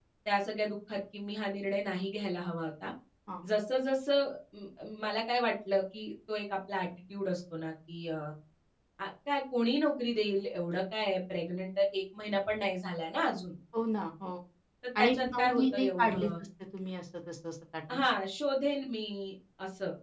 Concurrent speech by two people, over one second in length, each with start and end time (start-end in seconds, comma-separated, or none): 15.0-16.3